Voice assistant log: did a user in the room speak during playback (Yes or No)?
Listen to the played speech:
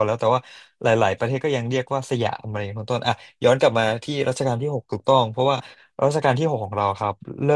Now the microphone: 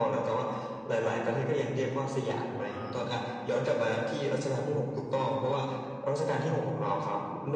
Yes